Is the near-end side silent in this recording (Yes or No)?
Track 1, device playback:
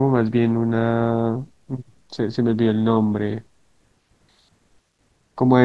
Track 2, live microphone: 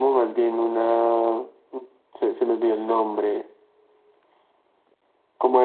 Yes